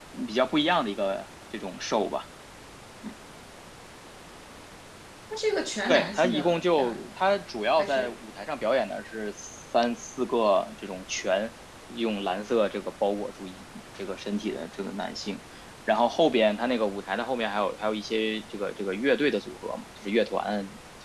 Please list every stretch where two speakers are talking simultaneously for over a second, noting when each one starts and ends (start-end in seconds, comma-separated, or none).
5.9-7.1